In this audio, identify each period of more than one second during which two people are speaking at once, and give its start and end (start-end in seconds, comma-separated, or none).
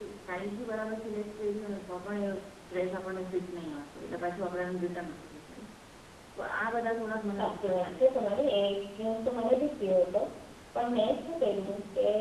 7.4-8.6